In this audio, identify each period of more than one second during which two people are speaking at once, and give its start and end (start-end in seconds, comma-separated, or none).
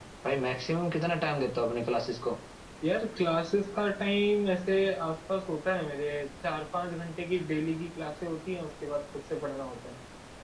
none